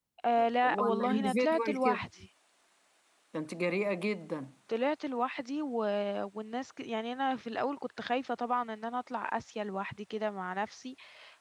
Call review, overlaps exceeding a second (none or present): present